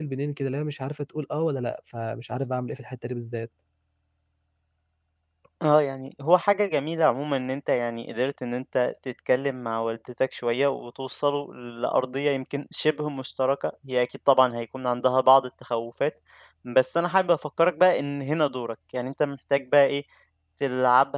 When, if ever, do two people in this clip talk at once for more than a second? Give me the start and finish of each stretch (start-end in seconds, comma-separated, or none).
none